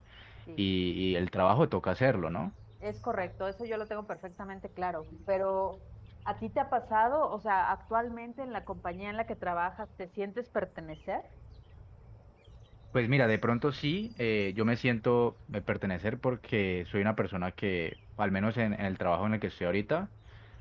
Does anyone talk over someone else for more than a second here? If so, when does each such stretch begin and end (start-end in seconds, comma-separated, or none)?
none